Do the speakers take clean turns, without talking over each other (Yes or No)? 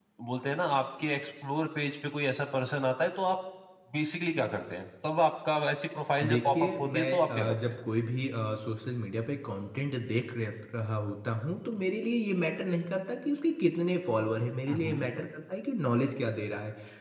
No